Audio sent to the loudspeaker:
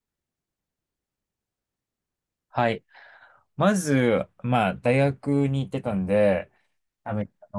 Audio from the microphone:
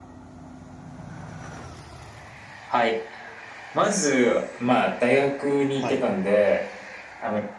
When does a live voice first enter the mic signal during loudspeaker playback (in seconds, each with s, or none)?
5.8 s